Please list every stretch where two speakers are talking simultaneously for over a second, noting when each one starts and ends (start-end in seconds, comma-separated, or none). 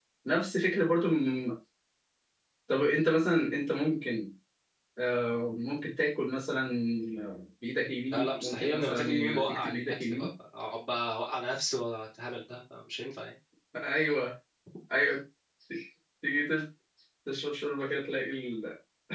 8.0-10.3